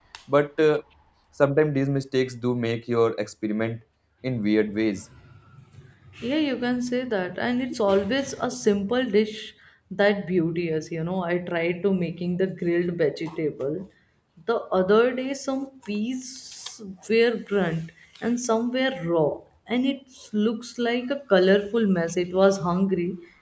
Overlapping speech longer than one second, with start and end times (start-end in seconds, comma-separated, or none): none